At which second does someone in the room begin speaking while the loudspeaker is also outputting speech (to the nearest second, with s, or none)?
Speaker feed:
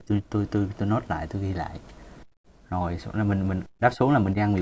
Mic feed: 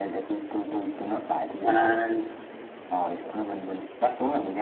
2 s